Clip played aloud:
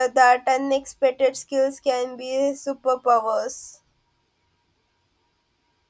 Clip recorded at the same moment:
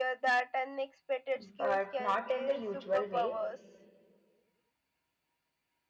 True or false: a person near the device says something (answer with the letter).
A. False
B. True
B